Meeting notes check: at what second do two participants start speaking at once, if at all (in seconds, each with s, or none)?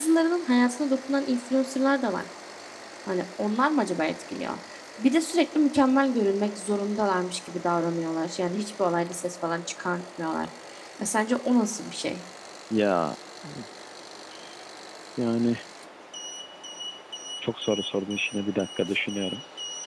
none